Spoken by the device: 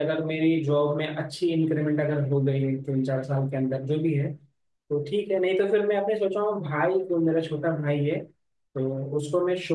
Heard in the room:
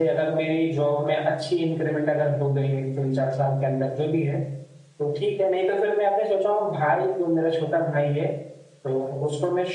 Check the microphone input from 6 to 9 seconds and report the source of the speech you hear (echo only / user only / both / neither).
echo only